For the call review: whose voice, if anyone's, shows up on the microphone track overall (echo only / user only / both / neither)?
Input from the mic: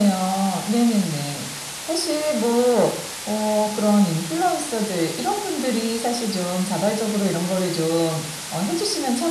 echo only